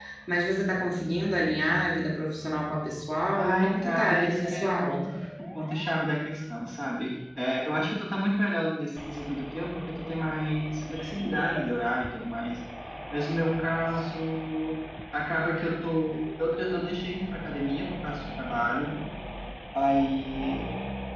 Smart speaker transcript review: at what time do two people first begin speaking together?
3 s

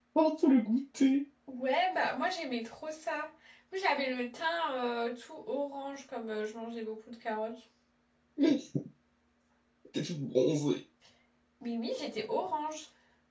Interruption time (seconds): none

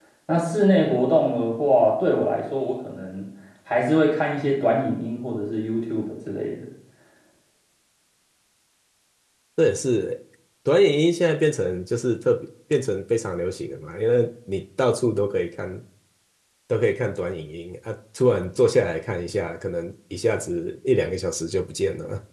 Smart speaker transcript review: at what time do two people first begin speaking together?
none

